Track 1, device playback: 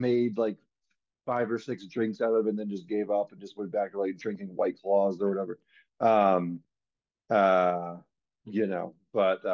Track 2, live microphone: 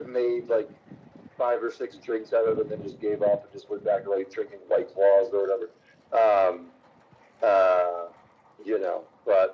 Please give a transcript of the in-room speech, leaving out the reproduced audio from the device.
none

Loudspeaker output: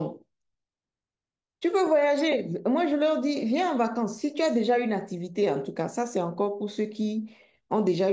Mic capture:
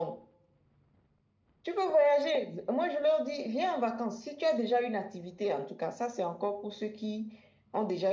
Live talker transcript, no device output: none

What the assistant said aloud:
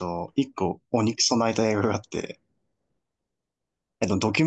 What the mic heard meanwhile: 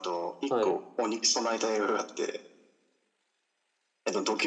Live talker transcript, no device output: はい。

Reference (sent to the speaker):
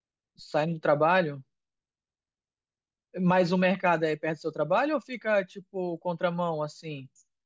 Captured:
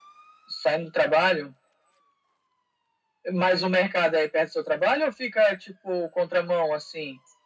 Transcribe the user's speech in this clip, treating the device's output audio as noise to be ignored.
none

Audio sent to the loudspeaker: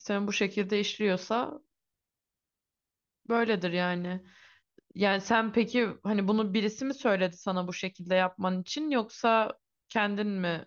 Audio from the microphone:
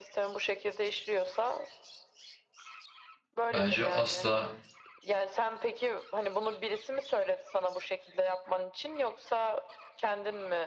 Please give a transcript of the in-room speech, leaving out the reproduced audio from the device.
Bence asla,

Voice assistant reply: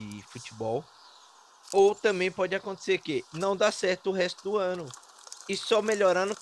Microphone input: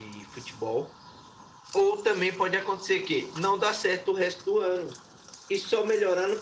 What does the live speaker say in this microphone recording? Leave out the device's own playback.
none

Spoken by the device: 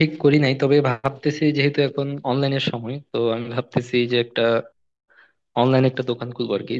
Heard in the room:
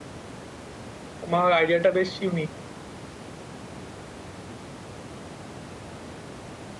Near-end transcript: তোমার আইডিয়াটা বেশ ইউনিক

